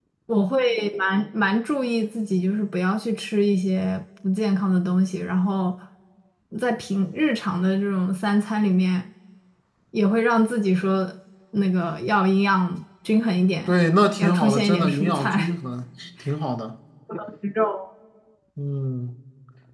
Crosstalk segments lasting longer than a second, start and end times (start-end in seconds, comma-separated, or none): 14.2-15.5